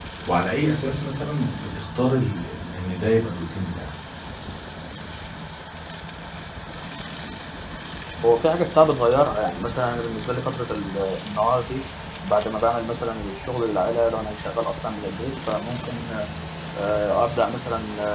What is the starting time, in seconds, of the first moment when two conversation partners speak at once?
none

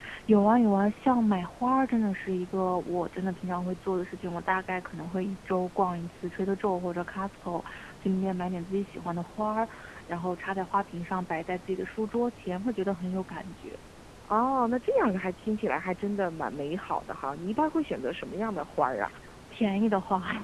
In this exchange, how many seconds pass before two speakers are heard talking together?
none

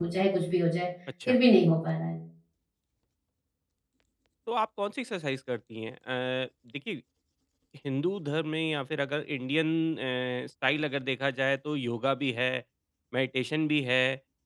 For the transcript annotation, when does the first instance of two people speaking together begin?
none

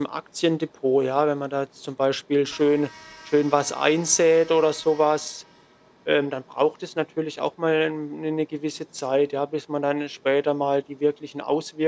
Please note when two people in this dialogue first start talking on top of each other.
none

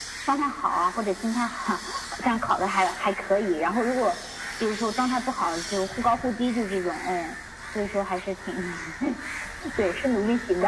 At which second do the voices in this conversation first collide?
none

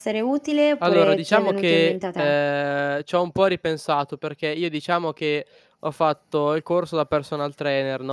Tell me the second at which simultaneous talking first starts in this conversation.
0.8 s

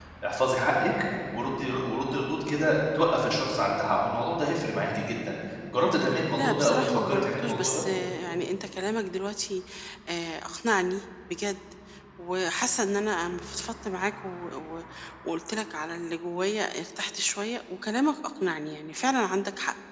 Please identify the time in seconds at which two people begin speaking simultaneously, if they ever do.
6.4 s

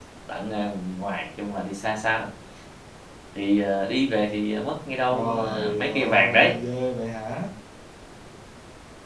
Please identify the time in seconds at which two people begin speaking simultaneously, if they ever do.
5.1 s

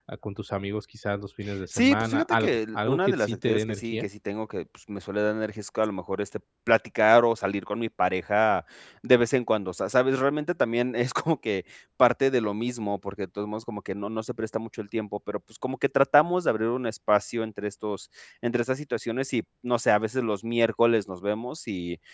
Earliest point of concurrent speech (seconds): 1.7 s

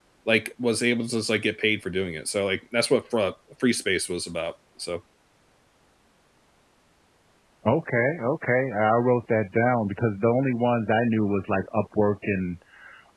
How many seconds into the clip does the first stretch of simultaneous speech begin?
none

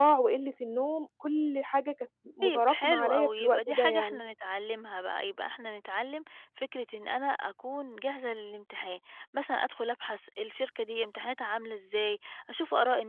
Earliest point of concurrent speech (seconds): 2.4 s

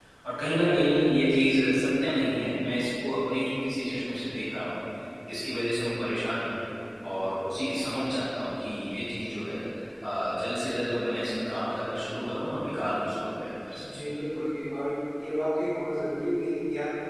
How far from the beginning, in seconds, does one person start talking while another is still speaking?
none

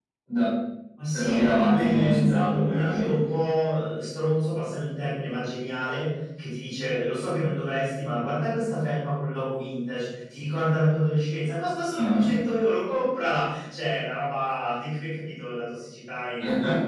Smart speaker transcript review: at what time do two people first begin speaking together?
1.1 s

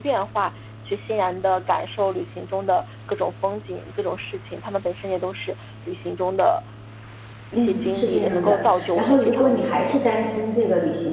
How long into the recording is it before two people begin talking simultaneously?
7.5 s

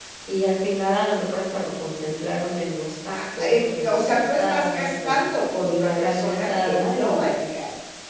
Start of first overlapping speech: 3.1 s

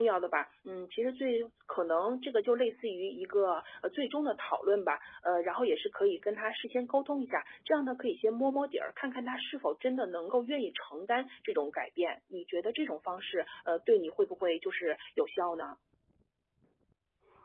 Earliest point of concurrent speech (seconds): none

